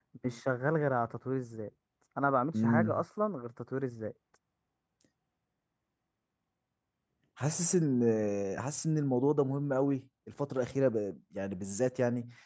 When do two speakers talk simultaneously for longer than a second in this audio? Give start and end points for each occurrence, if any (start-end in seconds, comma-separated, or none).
none